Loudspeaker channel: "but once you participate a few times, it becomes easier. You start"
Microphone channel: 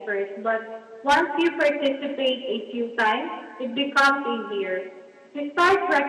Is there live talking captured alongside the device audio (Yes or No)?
No